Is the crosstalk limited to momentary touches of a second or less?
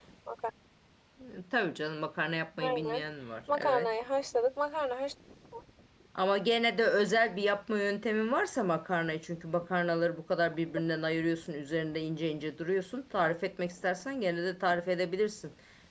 Yes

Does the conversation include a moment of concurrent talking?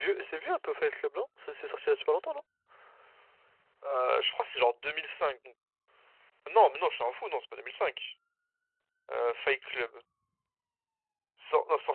No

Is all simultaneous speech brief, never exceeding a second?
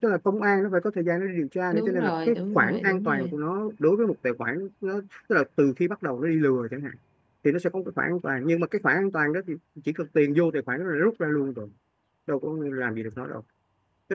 No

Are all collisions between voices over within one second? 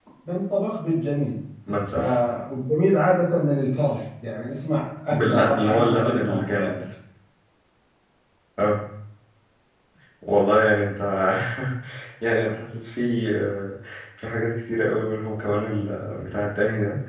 No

